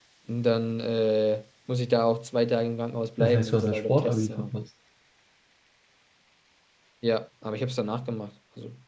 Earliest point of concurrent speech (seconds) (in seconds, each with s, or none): 3.2 s